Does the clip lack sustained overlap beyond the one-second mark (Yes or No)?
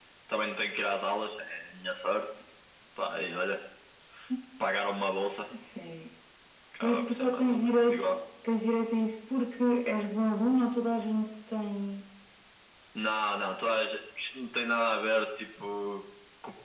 No